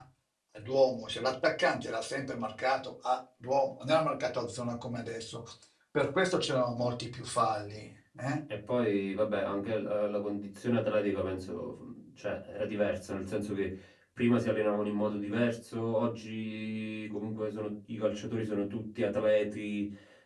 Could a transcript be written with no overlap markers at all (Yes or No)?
Yes